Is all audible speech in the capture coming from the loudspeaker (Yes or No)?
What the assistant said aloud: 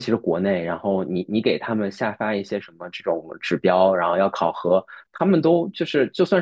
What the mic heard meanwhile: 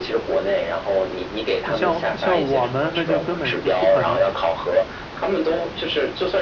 No